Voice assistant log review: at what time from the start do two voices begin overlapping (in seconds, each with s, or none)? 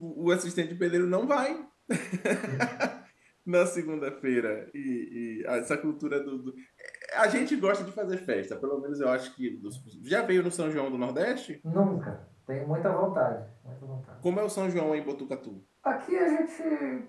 none